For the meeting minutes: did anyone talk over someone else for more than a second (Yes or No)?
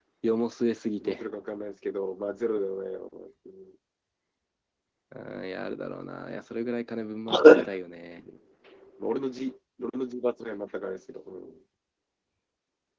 No